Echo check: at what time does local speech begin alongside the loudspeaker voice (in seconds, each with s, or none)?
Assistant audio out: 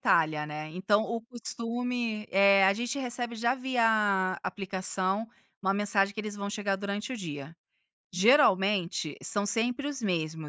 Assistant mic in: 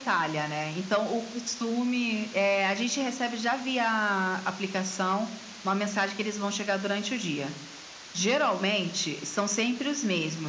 none